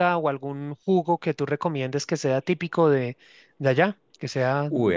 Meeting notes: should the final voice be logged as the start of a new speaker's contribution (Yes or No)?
Yes